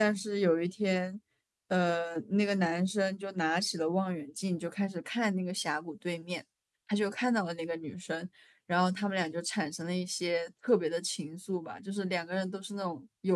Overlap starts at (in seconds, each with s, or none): none